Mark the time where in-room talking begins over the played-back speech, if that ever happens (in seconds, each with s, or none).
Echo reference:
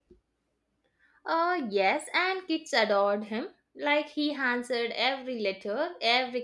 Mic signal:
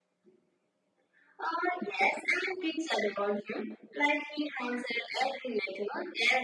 none